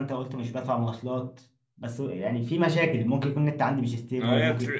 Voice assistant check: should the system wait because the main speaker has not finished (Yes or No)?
No